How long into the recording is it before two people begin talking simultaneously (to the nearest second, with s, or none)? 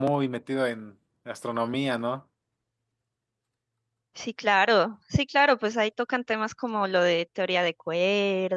none